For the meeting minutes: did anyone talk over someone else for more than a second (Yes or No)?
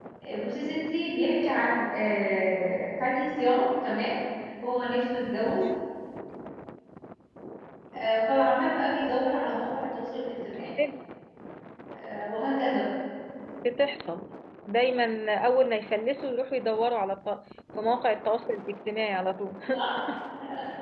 No